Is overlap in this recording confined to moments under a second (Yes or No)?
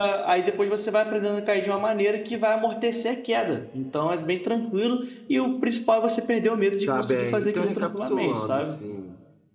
No